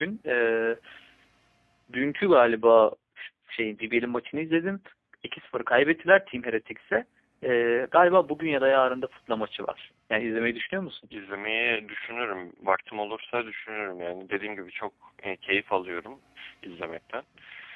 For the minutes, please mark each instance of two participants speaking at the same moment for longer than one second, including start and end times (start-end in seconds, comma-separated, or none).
none